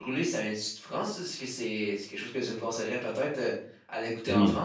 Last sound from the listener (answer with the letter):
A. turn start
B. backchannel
A